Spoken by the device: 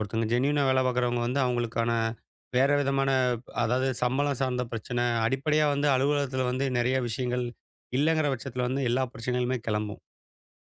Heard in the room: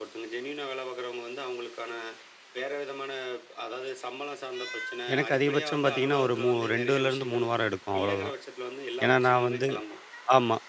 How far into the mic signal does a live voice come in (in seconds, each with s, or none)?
5.1 s